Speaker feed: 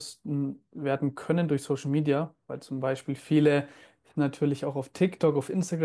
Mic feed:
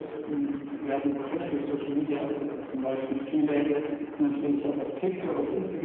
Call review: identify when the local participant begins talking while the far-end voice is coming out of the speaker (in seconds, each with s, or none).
none